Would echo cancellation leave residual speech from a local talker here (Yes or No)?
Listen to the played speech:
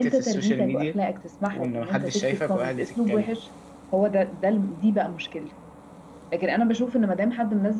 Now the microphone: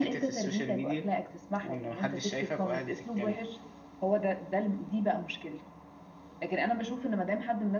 No